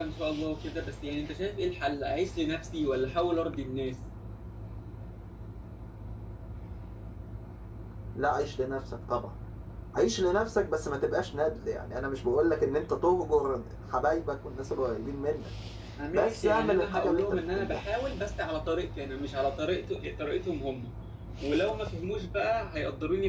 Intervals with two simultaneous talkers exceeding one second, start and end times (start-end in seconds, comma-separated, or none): 16.1-17.8